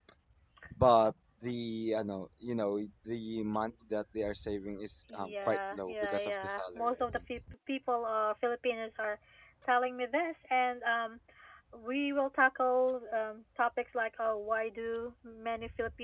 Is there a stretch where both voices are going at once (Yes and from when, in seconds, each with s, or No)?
Yes, from 5.1 s